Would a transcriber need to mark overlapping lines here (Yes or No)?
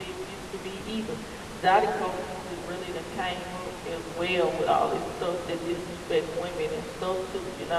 No